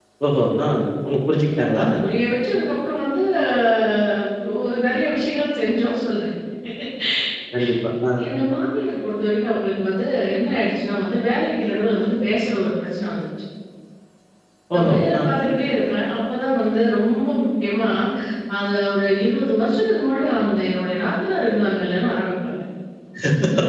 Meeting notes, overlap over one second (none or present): none